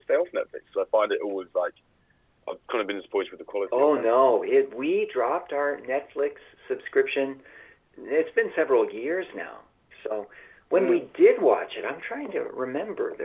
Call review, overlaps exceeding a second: none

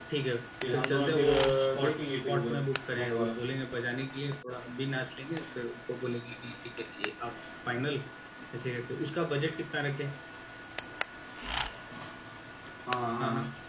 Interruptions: present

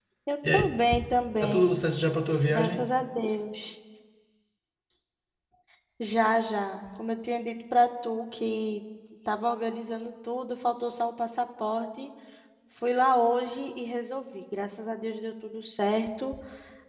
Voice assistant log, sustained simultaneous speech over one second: none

